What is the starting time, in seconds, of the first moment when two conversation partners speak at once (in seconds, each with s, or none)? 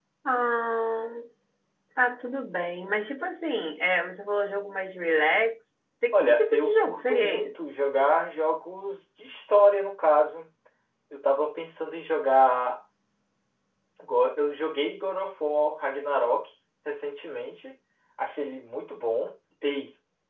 6.1 s